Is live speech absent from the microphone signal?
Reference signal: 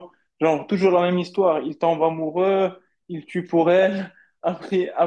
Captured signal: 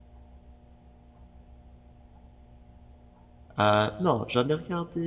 No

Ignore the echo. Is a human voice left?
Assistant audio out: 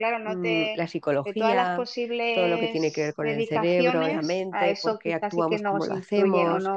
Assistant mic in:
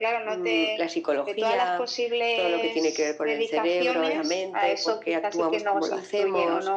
No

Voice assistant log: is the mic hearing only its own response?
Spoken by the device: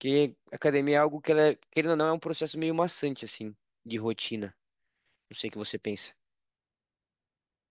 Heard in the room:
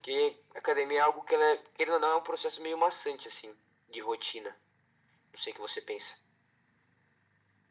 Yes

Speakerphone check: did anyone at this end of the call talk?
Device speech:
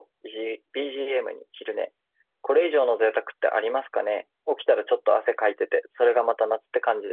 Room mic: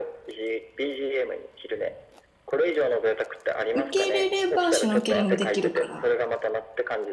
Yes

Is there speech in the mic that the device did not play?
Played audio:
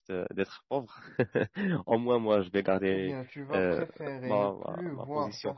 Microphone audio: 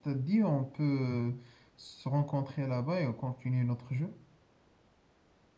Yes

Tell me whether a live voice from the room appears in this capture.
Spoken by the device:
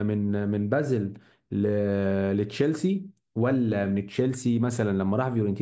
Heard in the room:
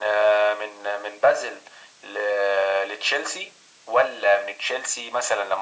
No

